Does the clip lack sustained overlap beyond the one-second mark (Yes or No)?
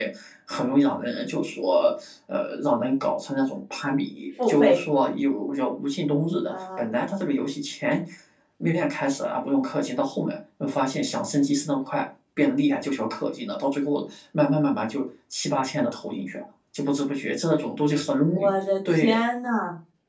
Yes